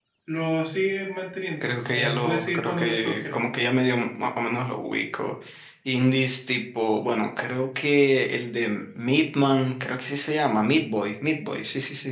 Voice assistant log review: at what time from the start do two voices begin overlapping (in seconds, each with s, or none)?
1.6 s